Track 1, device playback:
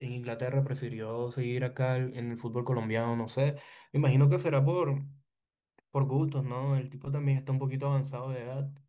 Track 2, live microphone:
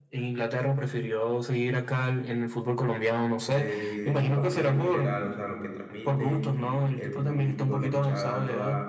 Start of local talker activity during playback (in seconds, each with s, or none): 3.4 s